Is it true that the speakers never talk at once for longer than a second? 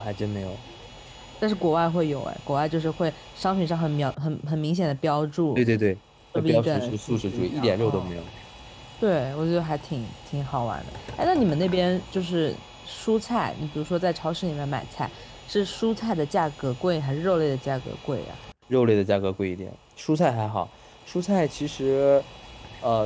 No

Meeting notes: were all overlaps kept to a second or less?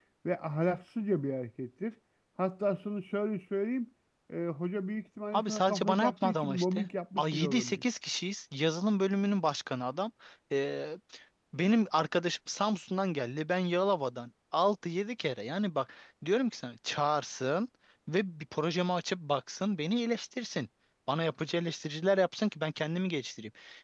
No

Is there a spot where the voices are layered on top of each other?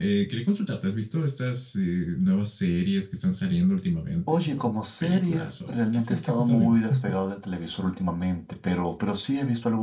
Yes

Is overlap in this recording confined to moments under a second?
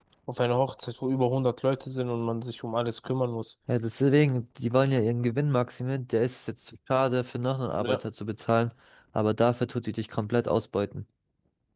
Yes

